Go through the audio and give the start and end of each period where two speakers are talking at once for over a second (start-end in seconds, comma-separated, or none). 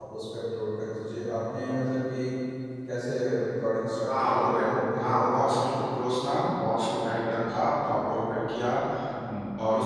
4.1-5.8